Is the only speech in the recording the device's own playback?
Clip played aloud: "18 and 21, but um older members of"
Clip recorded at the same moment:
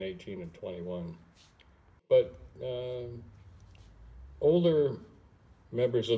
Yes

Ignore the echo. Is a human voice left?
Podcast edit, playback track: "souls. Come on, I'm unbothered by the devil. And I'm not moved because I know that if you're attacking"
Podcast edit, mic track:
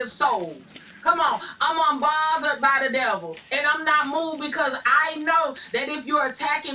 No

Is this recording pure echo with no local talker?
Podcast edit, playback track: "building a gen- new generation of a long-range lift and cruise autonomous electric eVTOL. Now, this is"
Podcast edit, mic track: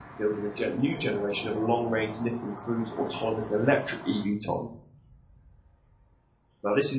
Yes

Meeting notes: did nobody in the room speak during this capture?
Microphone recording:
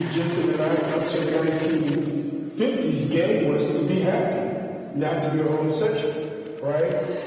Yes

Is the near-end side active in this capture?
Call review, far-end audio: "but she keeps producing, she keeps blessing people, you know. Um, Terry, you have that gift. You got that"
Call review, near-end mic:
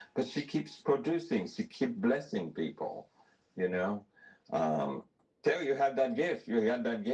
No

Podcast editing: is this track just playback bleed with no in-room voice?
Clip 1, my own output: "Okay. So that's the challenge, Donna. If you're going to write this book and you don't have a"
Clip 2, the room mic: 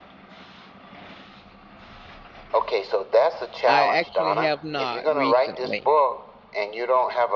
No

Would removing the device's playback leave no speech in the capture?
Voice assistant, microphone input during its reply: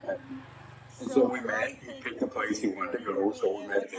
No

